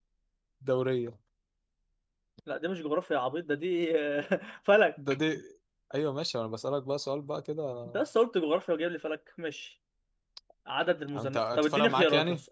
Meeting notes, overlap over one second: present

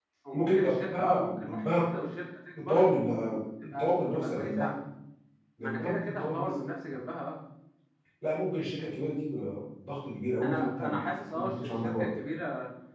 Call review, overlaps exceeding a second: present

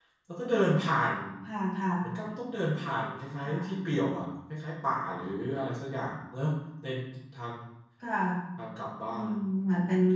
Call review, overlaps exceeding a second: none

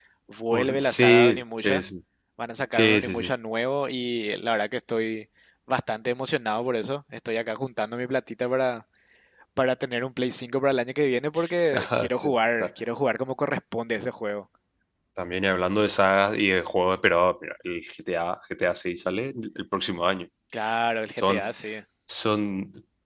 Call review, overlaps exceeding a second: present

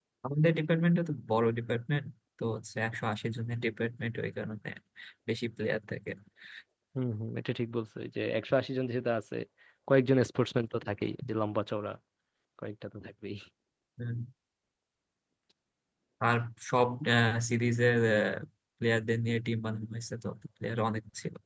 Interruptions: none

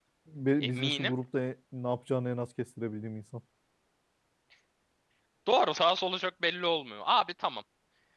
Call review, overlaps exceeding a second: none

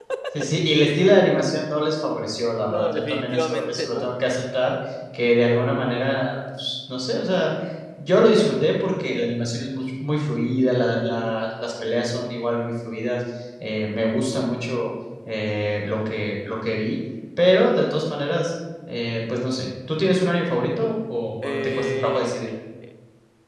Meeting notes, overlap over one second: present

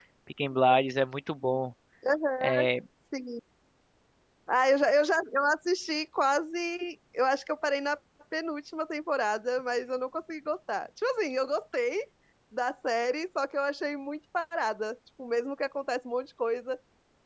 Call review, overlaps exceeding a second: none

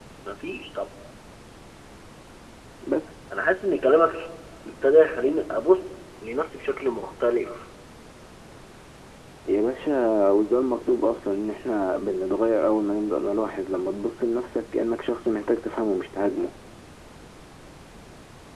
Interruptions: none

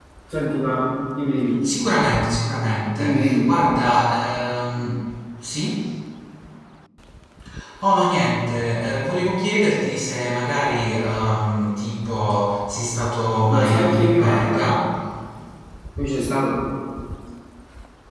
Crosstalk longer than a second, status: present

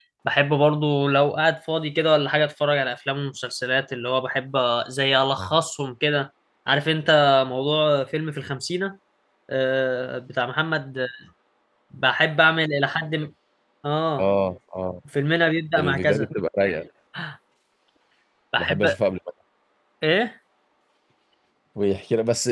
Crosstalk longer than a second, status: none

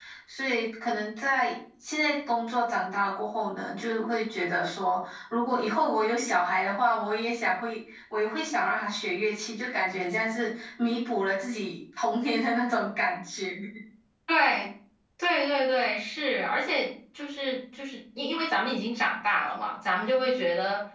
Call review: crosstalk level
none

